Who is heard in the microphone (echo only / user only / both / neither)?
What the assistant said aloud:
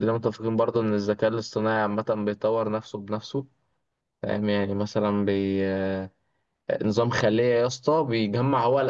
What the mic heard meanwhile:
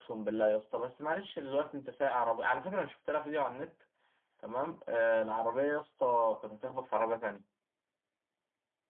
user only